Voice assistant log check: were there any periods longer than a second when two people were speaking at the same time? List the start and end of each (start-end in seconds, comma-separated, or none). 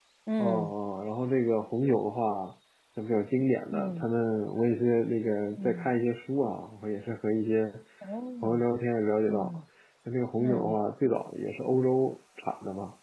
none